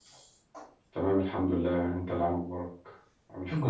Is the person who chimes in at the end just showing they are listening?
No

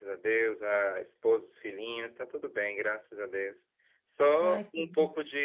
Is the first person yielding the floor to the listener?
No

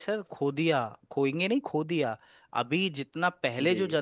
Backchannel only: Yes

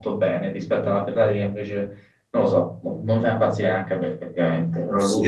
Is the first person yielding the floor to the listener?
Yes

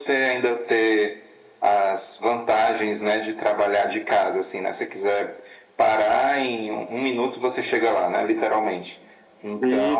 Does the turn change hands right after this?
Yes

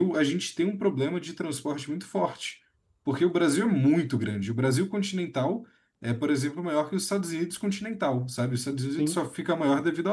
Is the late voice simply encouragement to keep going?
Yes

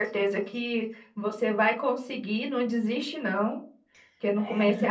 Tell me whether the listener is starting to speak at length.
No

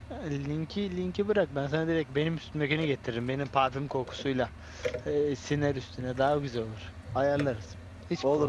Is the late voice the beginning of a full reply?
Yes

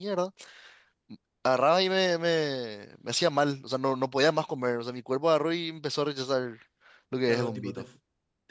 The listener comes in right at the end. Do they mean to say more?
Yes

